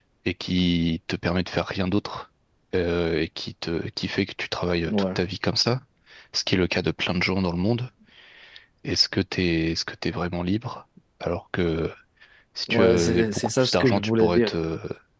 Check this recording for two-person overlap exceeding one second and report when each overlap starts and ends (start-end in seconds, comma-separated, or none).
12.7-14.6